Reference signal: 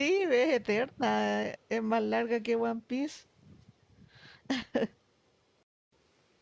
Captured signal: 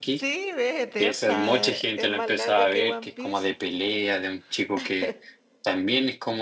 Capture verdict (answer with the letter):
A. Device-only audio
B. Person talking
B